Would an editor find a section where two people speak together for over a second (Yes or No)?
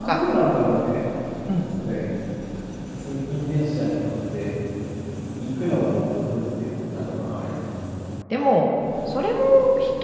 No